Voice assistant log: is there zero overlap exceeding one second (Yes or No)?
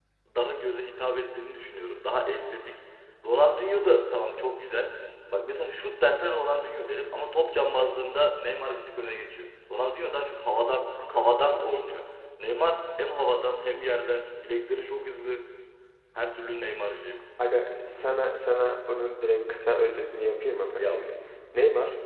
Yes